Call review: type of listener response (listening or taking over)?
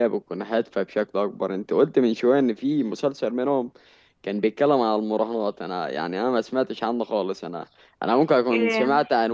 listening